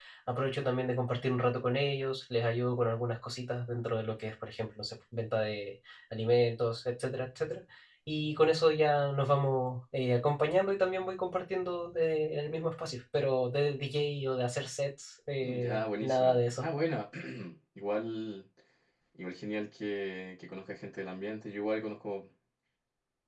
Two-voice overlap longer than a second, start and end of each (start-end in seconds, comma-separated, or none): 15.4-16.6